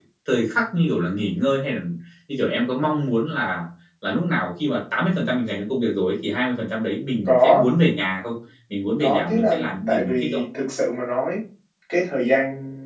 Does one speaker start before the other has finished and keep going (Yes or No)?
Yes